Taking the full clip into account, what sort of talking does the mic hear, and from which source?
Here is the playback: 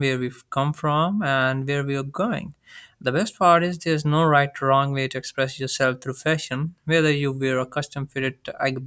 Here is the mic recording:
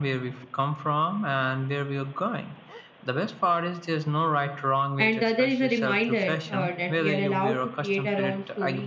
both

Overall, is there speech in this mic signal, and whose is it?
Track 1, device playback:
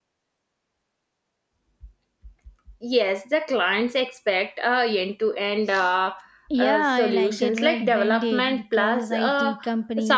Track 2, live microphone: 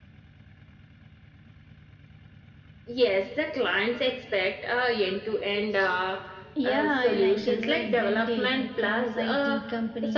echo only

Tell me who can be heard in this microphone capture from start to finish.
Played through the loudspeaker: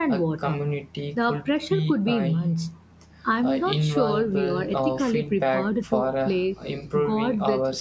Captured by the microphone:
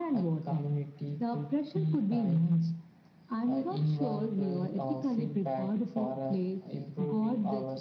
echo only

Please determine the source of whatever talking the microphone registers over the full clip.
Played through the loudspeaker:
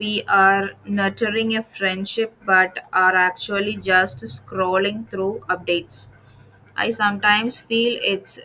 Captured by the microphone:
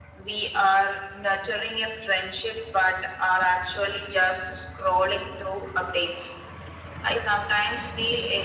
echo only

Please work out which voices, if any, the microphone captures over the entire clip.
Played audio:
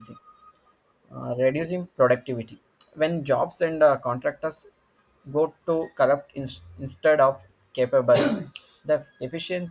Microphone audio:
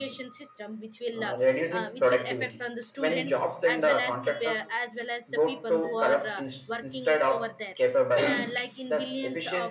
both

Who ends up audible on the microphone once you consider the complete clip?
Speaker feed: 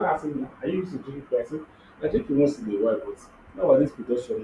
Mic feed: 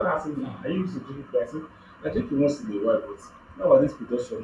both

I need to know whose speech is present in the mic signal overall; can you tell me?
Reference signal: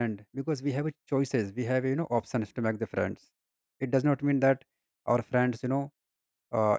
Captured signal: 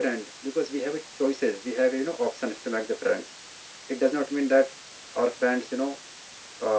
echo only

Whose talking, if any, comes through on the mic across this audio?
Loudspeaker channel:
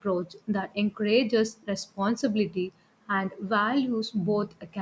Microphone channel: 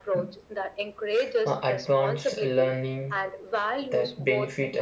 both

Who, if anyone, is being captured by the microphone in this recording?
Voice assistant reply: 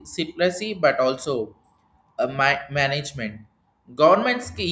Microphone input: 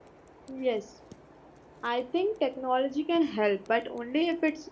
user only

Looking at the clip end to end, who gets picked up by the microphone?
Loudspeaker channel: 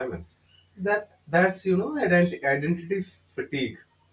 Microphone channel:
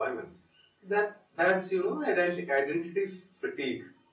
echo only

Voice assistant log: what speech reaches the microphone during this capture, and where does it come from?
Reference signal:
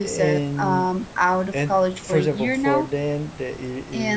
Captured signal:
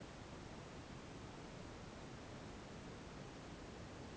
neither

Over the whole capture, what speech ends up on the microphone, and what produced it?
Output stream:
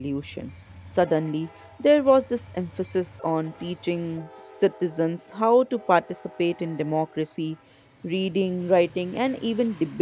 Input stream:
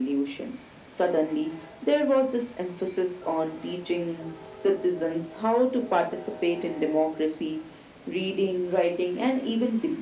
echo only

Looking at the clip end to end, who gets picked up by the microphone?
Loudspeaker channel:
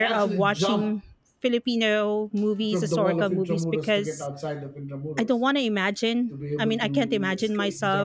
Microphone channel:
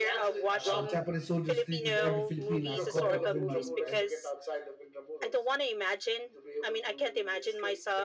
both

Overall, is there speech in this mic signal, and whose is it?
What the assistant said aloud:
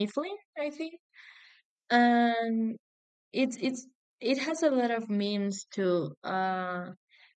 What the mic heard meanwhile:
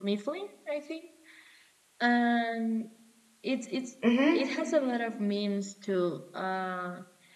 both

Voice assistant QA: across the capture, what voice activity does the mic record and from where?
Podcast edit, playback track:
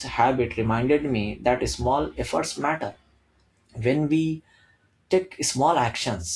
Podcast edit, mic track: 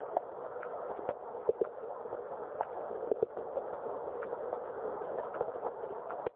neither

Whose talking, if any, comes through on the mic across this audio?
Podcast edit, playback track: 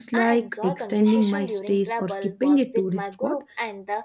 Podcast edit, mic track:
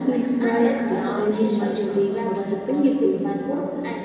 both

